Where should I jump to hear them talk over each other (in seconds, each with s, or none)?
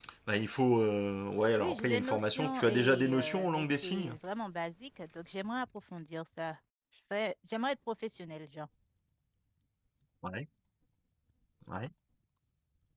1.6 s